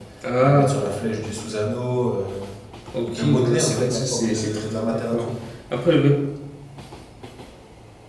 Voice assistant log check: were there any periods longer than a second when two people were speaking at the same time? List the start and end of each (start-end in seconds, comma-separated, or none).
3.0-5.3